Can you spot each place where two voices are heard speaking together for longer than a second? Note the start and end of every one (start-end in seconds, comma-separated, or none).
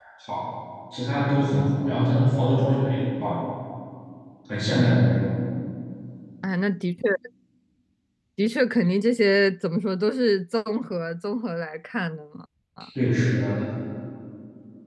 none